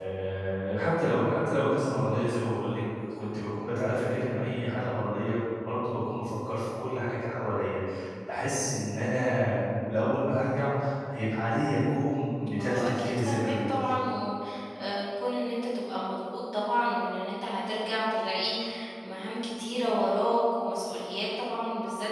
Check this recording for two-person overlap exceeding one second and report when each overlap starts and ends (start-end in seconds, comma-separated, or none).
12.5-13.8